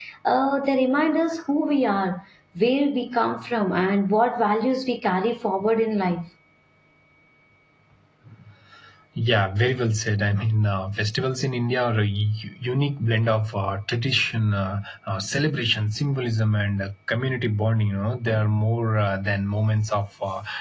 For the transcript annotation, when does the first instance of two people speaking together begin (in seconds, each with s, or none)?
none